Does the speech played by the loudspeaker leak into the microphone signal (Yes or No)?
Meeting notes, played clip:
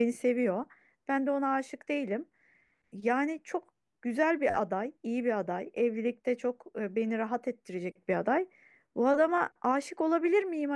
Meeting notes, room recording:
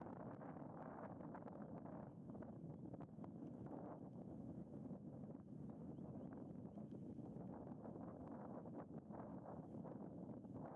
No